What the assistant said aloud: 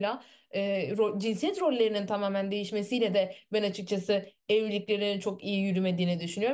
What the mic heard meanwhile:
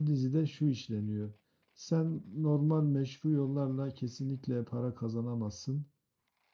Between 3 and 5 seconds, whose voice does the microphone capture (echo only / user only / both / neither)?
user only